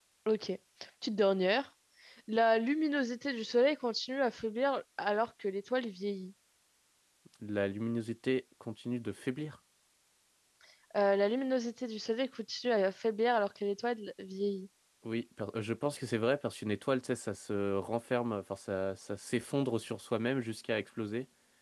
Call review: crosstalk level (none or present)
none